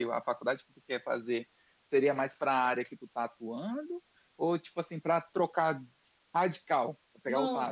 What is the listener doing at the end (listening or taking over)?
taking over